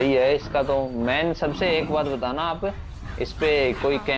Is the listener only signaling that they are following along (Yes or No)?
Yes